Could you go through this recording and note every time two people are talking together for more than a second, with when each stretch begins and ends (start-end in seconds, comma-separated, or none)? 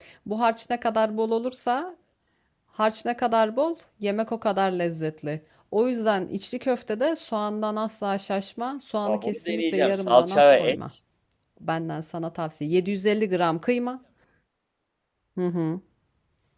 9.0-10.9